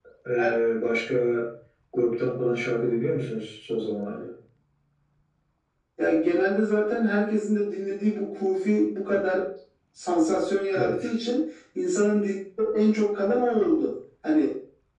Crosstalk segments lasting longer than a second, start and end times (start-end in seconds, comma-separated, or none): none